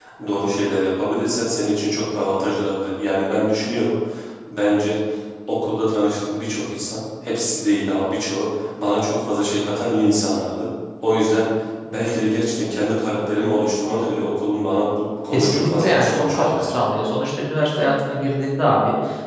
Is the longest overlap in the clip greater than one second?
Yes, from 15.3 s

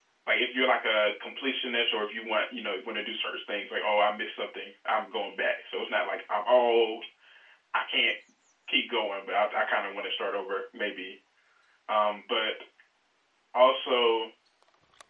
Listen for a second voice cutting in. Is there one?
No

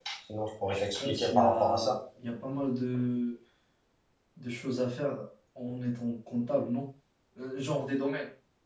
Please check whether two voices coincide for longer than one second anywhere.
Yes, from 0.7 s

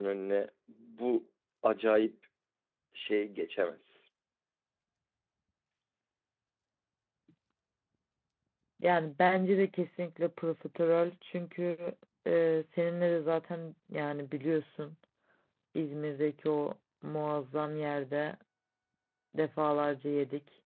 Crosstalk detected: No

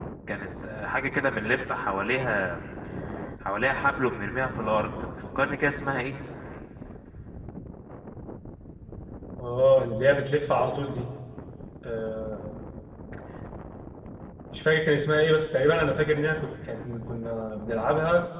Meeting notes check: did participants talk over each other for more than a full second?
No

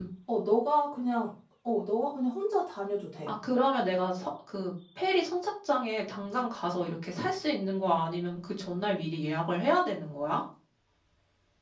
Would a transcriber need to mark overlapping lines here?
No

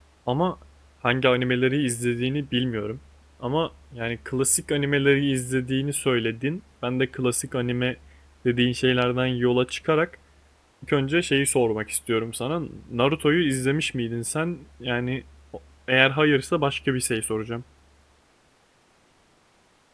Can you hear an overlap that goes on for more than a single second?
No

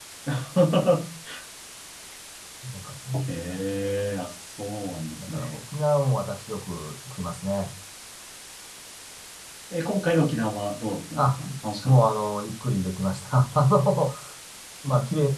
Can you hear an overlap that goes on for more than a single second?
No

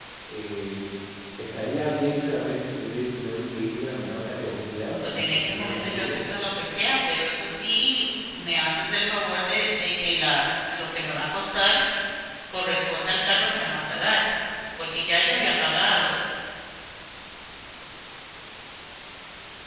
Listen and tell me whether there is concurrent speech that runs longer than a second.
Yes, from 5.0 s

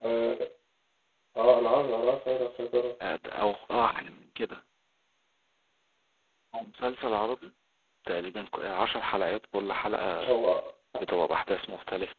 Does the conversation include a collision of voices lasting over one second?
No

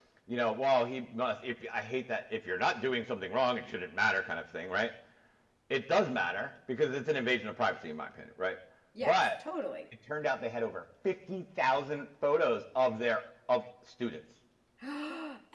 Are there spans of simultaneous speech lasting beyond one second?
No

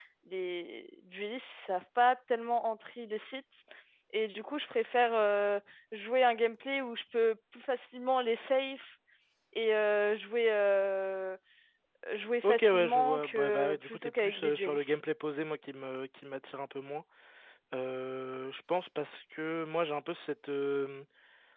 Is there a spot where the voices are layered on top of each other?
Yes, from 12.4 s

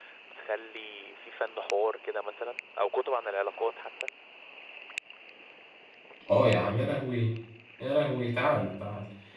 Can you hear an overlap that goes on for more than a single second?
No

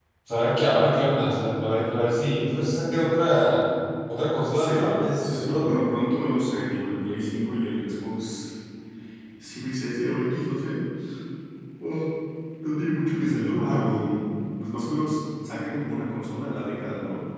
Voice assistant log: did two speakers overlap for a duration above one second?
Yes, from 4.5 s

